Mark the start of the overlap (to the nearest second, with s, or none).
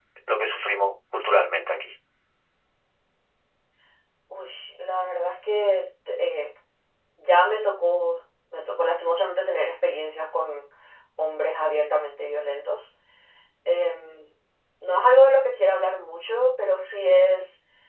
none